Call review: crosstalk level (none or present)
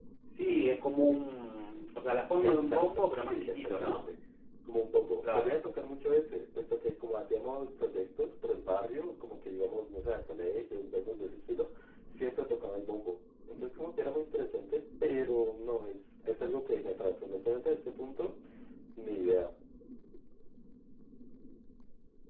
present